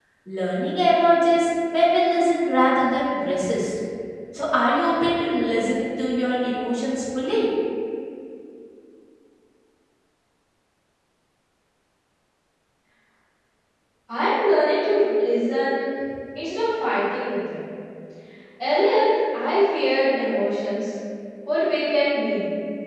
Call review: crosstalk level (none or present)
none